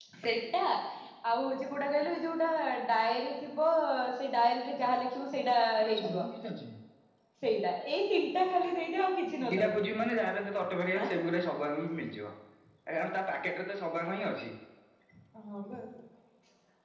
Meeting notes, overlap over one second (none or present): none